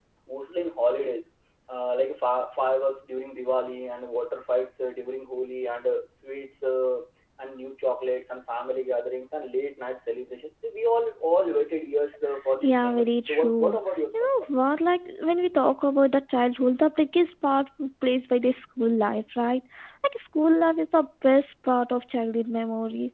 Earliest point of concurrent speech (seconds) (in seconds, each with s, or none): 12.6 s